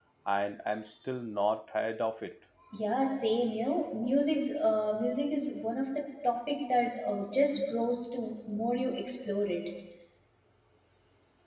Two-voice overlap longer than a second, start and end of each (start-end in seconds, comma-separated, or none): none